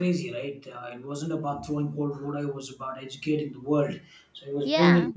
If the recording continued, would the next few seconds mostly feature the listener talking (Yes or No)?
No